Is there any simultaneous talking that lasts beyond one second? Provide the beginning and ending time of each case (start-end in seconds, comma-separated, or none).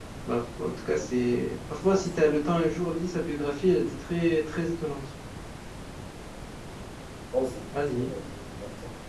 none